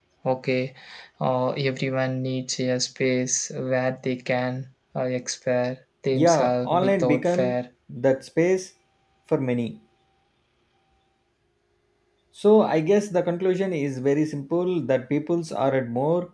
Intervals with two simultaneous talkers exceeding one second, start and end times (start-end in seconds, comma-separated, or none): 6.1-7.6